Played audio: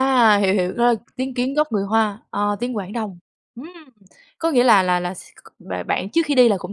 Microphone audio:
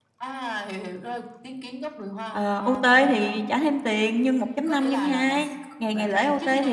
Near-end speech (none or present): present